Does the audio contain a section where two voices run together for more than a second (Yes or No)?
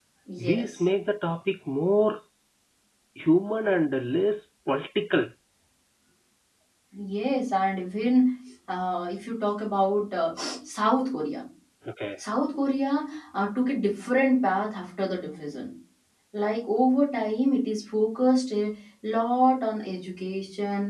No